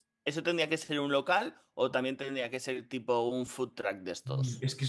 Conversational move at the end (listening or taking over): taking over